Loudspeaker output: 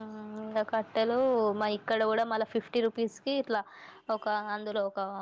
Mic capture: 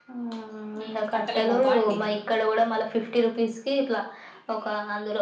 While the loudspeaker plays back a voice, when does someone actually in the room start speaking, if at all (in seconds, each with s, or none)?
0.8 s